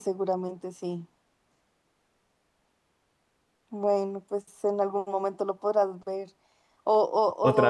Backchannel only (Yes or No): Yes